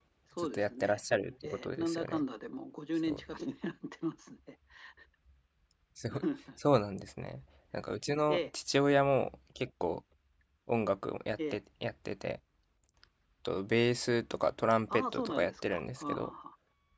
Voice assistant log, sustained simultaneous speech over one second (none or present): present